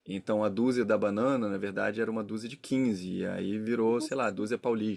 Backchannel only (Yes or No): Yes